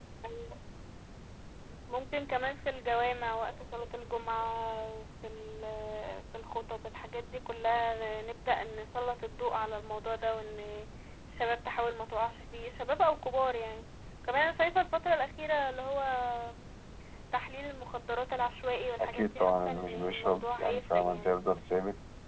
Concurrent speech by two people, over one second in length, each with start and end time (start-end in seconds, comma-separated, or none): 19.0-21.4